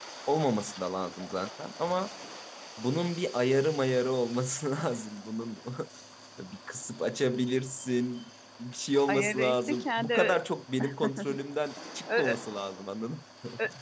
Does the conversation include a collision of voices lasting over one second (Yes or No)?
Yes